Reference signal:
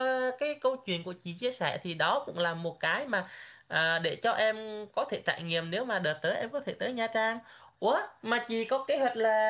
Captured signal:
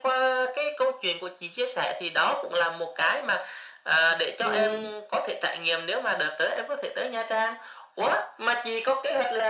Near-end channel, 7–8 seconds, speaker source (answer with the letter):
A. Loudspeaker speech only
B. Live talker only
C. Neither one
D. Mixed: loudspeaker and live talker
A